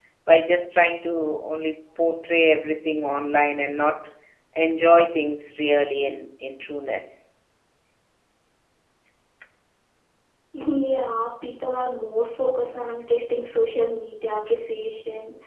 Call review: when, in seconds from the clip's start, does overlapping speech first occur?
none

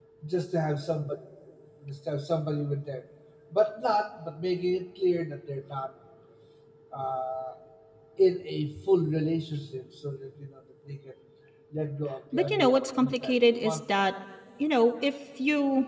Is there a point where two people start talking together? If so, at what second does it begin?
12.3 s

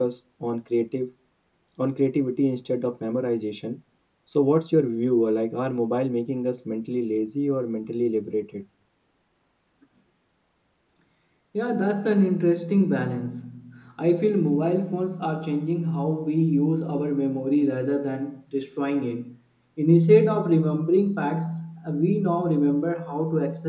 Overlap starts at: none

